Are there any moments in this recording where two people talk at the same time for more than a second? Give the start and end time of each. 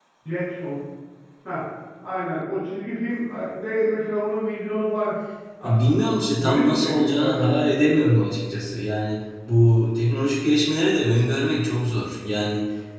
5.6-7.7

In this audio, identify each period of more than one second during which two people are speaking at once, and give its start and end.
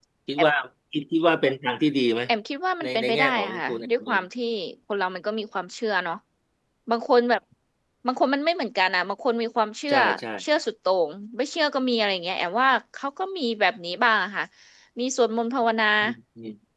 2.8-4.2

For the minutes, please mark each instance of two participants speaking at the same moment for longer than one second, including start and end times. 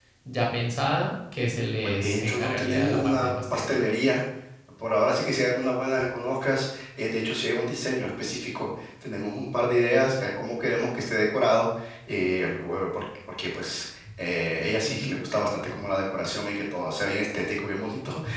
1.8-3.8

